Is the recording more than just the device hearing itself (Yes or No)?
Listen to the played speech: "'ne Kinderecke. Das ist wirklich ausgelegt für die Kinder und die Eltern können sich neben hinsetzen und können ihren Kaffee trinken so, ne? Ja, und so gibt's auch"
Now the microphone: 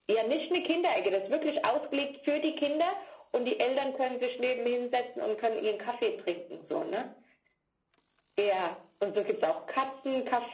No